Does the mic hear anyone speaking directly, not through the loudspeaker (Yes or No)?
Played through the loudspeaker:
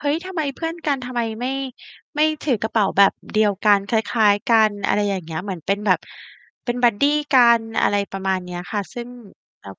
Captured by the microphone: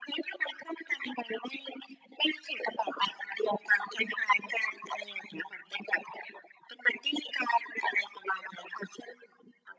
No